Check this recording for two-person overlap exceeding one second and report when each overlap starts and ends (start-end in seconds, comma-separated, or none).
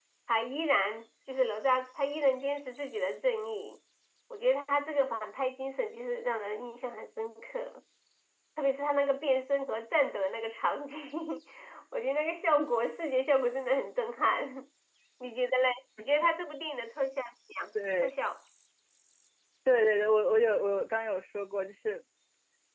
none